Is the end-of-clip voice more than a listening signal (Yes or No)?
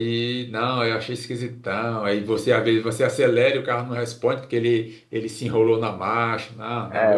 Yes